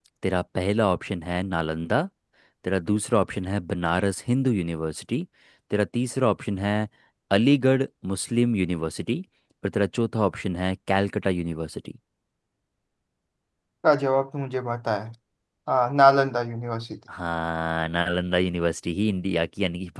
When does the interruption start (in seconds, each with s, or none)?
none